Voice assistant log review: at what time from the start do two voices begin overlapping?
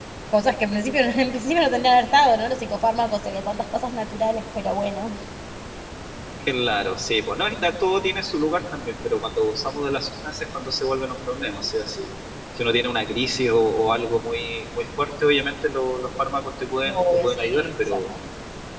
17 s

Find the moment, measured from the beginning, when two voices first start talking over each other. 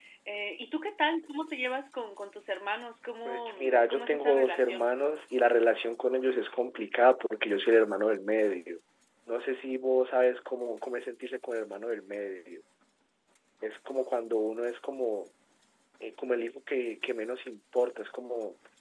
3 s

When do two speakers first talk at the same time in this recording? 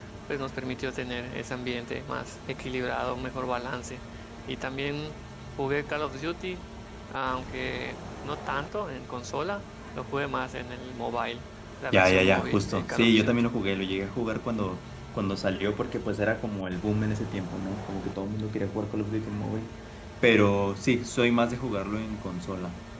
12 s

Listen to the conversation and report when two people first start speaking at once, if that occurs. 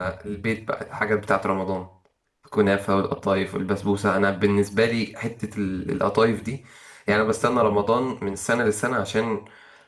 none

